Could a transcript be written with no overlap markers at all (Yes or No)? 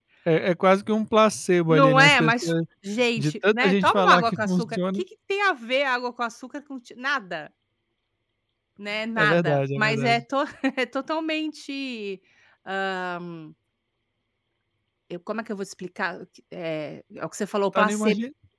No